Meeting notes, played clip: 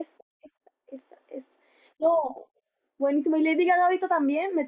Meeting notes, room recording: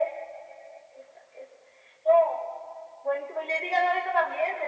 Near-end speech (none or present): none